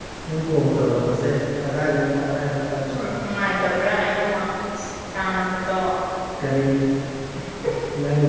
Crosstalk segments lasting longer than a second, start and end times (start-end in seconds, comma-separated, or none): none